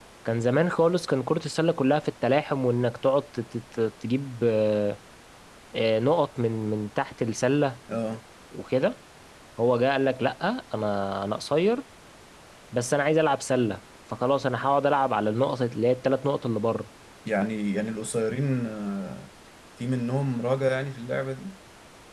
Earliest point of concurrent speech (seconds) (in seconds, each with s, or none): none